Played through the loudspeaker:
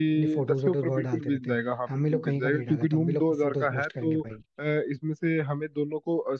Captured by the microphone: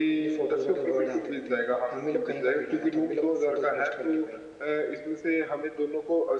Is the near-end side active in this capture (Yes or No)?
No